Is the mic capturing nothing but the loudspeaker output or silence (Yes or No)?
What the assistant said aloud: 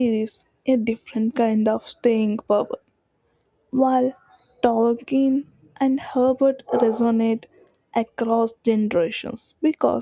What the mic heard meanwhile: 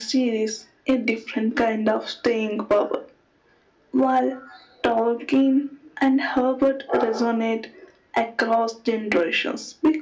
Yes